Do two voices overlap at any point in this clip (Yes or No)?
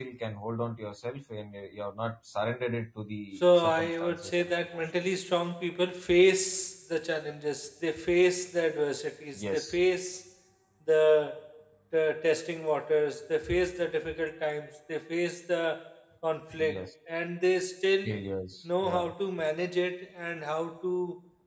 Yes